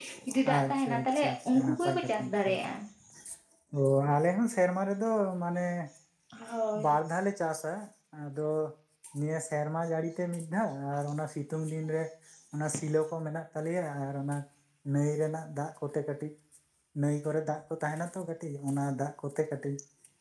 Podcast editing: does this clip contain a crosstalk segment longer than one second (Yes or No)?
Yes